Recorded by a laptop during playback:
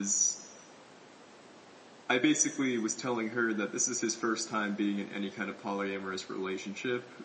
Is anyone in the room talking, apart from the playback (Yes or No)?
Yes